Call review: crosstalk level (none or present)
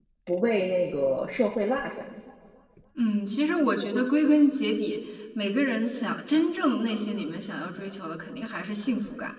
none